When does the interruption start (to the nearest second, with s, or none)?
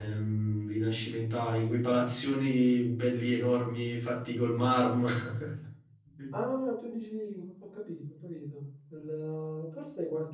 none